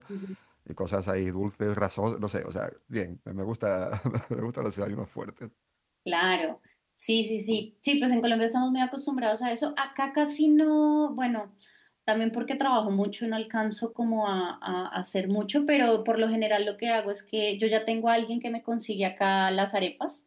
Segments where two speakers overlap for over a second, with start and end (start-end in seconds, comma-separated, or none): none